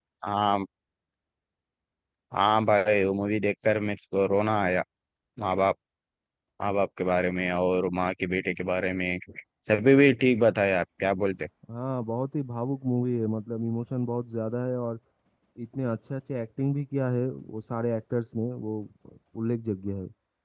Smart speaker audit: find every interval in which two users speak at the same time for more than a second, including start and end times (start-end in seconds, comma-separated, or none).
none